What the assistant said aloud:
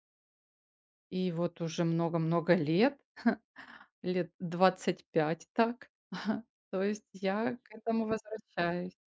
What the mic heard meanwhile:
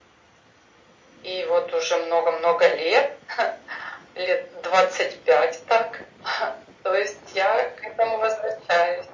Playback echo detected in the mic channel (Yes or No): Yes